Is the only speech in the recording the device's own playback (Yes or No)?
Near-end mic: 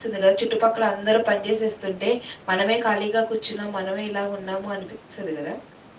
No